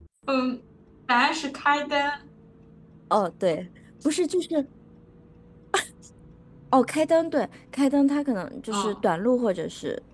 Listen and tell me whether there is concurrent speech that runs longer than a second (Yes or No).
No